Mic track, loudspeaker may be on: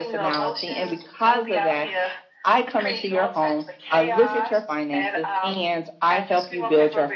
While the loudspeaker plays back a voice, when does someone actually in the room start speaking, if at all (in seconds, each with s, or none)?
none